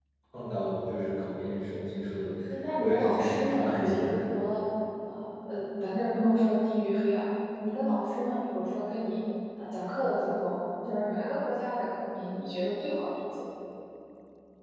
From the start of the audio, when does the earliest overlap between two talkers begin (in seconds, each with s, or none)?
2.8 s